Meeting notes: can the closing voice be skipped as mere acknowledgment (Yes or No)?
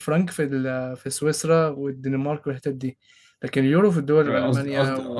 No